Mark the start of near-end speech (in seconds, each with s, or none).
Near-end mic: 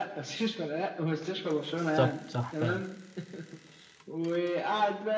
1.8 s